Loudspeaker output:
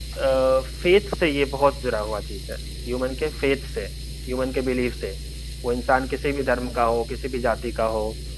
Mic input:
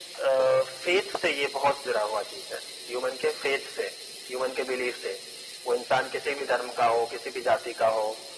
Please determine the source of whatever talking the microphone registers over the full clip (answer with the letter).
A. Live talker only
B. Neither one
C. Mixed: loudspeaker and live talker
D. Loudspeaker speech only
D